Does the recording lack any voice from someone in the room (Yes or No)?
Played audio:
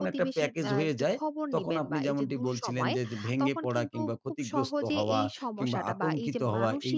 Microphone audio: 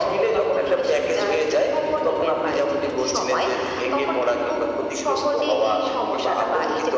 Yes